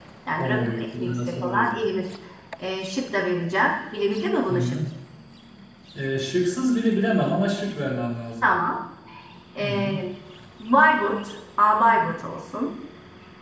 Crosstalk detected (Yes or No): Yes